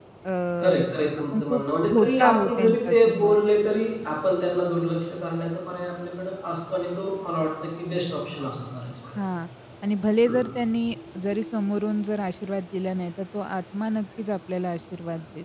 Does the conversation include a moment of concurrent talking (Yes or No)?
Yes